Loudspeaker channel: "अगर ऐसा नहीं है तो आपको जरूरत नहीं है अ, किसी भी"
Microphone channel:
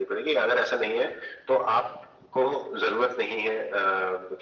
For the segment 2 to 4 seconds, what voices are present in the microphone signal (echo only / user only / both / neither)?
echo only